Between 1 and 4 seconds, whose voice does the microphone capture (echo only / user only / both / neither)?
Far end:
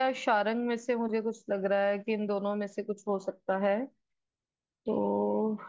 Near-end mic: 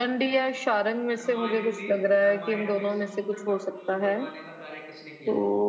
both